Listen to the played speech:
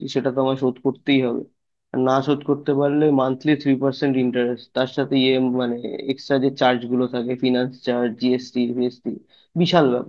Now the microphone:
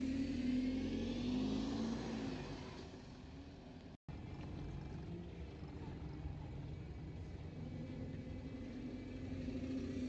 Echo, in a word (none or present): none